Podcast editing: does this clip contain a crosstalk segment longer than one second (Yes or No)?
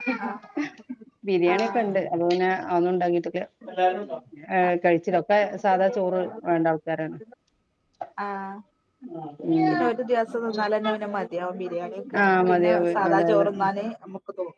Yes